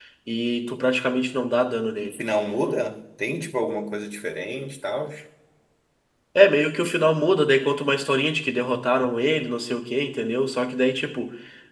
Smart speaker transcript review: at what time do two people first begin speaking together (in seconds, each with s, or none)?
none